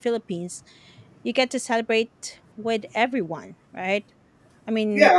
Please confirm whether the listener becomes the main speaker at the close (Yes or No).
Yes